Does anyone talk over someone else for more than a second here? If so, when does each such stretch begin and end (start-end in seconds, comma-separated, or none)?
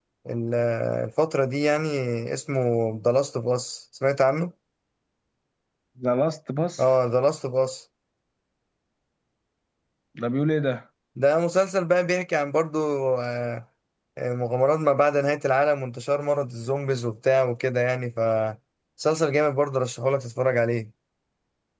none